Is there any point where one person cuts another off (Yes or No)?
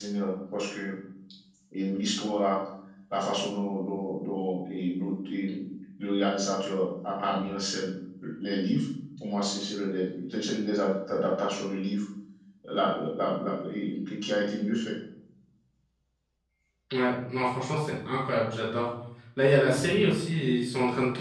No